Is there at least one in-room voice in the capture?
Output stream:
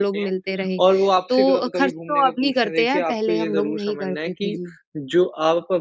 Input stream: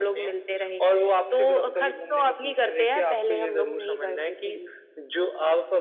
No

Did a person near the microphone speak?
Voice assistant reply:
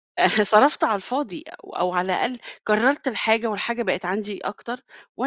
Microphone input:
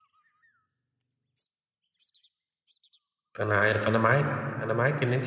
Yes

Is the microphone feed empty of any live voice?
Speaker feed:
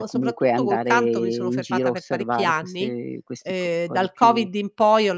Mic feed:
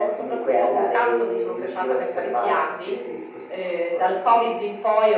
Yes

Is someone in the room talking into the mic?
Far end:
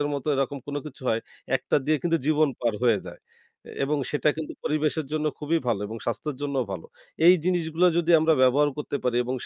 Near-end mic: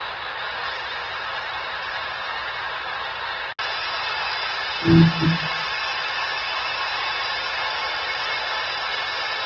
Yes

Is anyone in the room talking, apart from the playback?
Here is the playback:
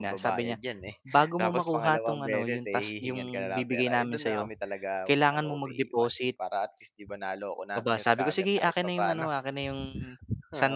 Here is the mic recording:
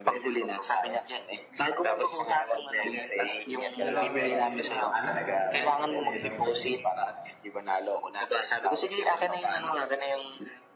Yes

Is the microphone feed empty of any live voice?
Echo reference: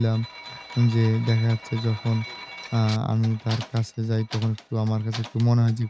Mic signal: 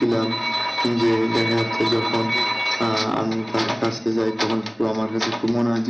Yes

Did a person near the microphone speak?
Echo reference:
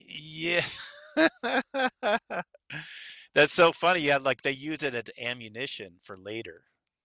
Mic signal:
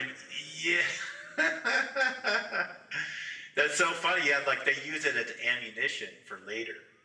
No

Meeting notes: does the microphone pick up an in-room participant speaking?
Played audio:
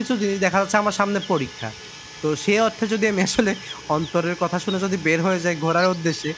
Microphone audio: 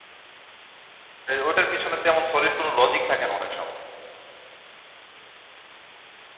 Yes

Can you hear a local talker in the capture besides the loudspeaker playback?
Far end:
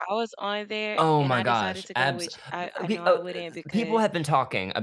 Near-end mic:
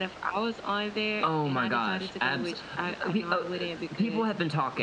No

